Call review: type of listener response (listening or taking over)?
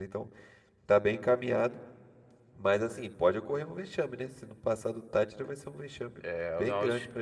taking over